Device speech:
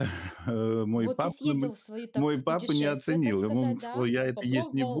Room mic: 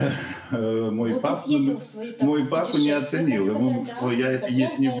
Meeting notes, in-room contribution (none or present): none